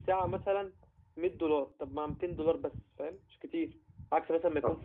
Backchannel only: Yes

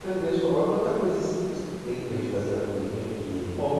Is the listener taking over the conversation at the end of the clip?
Yes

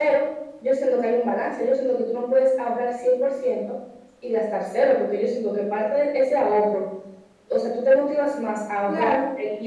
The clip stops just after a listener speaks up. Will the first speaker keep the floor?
Yes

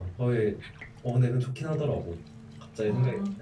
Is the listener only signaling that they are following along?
No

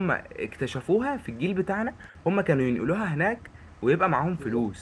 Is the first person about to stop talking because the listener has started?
Yes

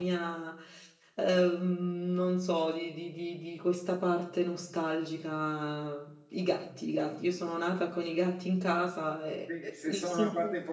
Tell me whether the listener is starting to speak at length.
Yes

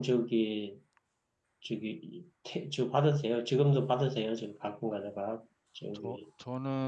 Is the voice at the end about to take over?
Yes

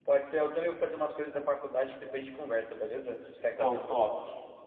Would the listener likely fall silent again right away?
No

